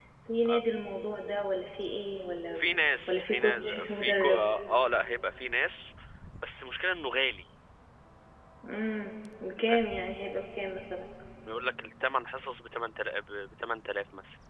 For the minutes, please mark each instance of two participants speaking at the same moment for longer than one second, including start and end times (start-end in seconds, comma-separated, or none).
3.1-4.4